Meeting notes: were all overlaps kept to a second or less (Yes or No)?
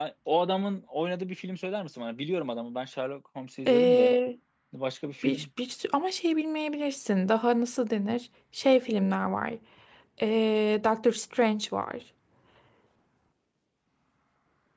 Yes